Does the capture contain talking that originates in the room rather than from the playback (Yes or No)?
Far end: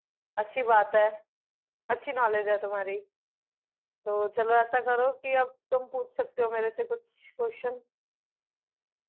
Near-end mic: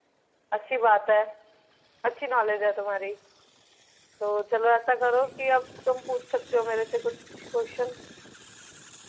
No